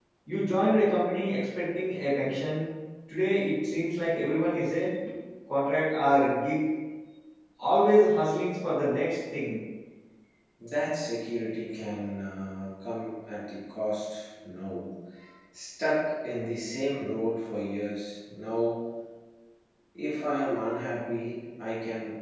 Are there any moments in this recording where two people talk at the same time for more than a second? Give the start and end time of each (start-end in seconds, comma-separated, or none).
none